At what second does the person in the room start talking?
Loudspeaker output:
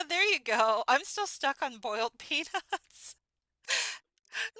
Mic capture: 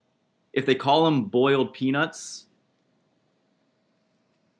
0.5 s

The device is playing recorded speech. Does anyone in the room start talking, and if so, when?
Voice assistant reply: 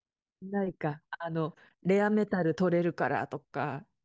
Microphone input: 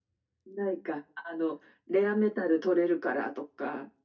none

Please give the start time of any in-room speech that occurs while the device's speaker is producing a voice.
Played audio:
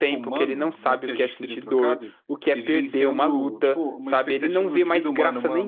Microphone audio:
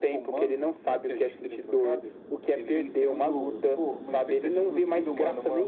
none

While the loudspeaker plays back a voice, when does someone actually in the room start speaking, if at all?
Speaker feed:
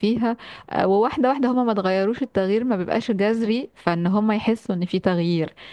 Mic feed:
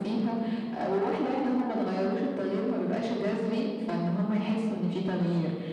none

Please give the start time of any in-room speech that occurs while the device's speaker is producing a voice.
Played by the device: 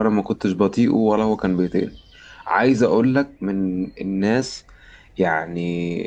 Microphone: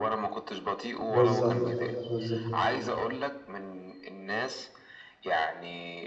1.1 s

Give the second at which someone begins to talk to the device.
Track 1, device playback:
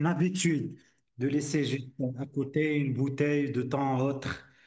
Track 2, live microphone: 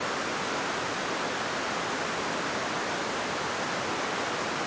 none

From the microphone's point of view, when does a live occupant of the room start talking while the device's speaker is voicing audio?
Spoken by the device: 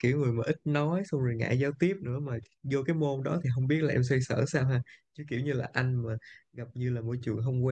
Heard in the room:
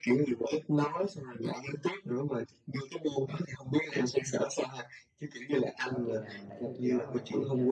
5.8 s

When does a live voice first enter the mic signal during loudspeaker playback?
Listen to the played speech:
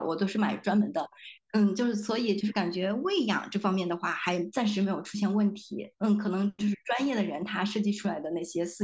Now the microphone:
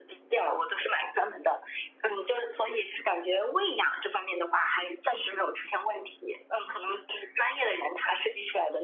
none

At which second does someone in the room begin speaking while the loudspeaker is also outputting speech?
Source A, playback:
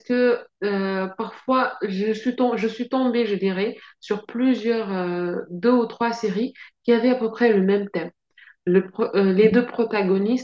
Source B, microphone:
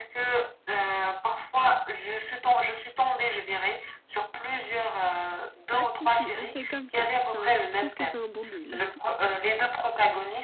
5.7 s

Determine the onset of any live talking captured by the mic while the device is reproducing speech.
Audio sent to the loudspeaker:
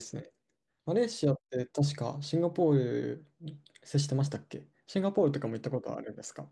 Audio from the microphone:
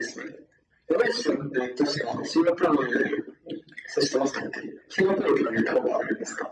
none

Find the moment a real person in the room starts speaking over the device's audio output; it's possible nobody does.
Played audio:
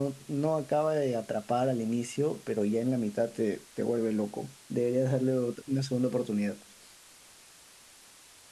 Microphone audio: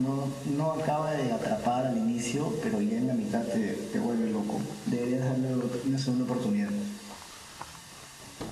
none

